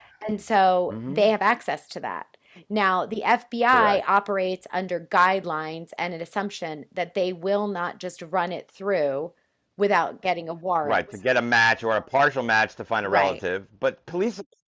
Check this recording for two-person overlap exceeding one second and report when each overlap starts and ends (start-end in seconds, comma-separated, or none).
none